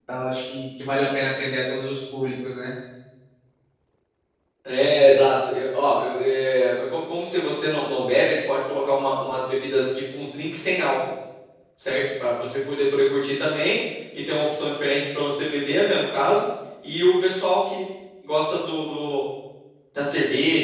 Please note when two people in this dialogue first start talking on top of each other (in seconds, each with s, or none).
none